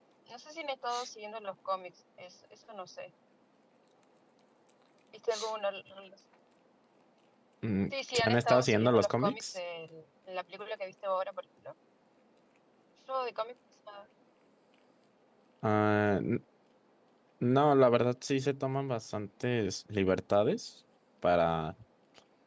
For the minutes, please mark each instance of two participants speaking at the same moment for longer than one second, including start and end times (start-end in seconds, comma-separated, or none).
7.9-9.6